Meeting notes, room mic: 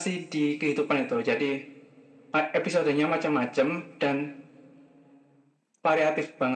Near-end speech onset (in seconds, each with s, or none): none